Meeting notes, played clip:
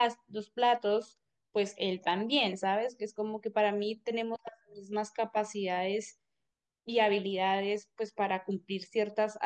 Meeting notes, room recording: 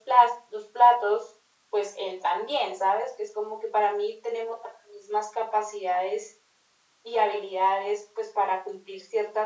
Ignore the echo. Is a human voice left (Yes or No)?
No